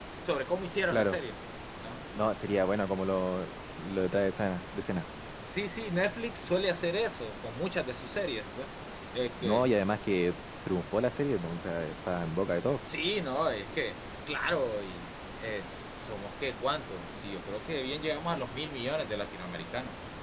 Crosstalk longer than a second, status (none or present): none